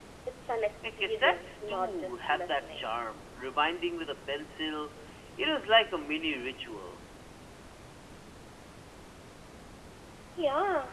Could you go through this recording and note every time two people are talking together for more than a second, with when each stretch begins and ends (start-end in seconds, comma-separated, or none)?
0.8-2.9